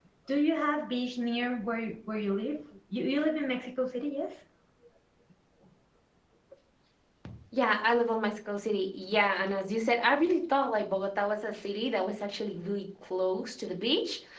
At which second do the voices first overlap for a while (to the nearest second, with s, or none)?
none